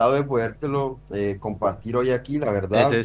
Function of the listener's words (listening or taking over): taking over